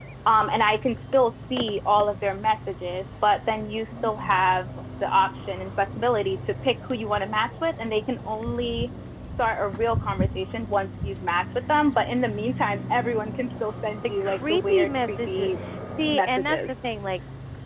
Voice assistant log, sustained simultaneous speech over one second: present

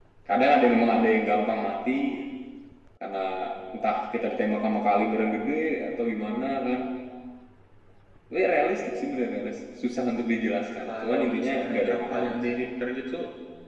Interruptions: present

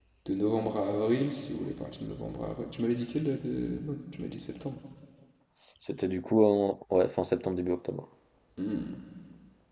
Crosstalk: none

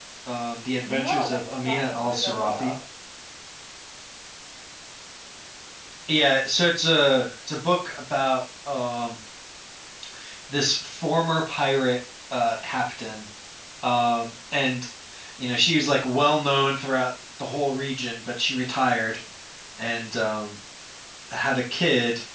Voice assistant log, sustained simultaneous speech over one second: present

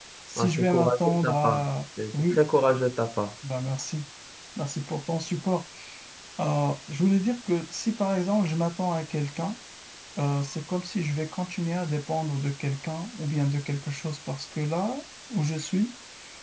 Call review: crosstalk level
present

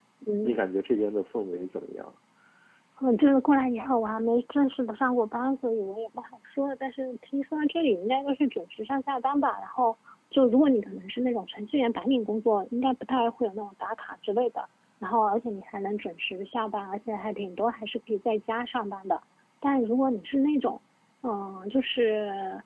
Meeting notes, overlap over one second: none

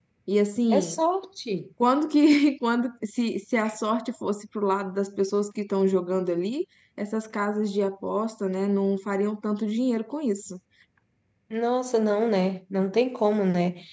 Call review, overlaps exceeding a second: none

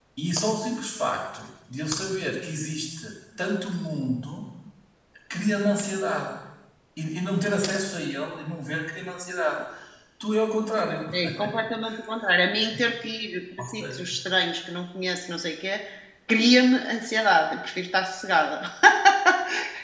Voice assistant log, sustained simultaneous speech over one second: none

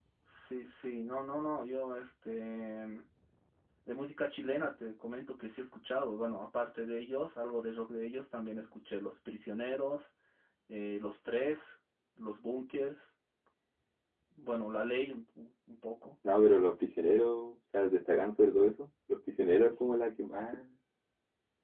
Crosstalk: none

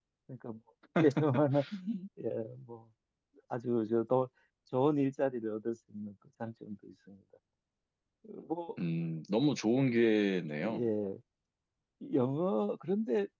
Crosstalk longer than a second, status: none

